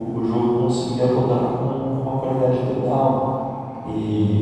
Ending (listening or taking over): listening